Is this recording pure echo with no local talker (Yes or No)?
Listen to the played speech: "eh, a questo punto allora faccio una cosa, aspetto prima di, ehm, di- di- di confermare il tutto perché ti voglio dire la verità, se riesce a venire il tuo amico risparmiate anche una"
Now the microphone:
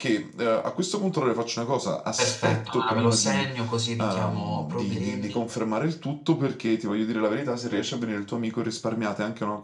No